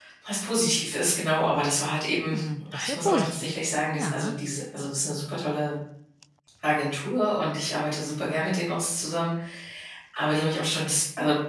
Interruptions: present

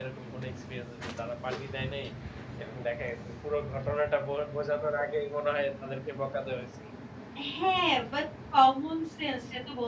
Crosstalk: none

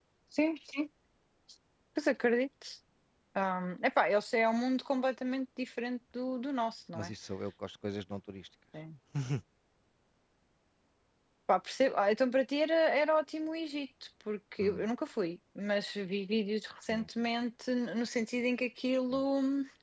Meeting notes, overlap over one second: none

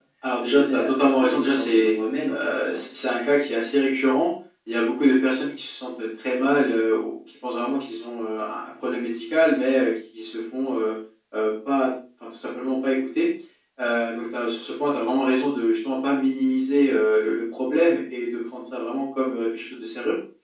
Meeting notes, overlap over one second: present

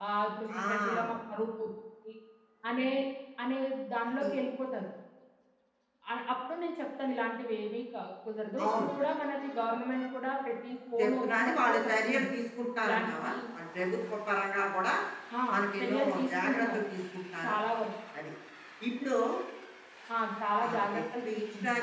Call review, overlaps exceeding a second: present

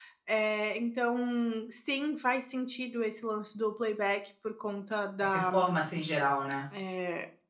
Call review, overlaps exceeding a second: none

